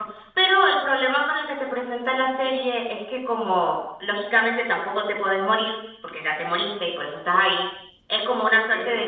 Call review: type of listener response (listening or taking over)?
listening